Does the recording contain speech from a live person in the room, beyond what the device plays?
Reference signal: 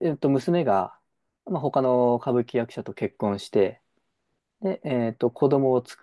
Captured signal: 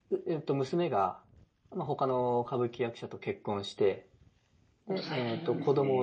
Yes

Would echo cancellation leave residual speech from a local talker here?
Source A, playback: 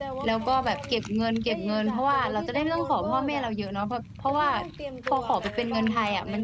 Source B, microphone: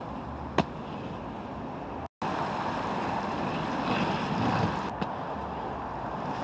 No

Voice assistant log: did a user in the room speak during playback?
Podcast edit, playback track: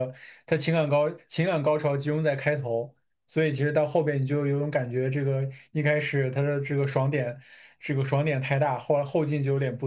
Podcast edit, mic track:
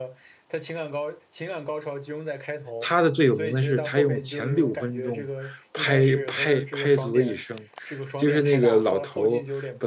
Yes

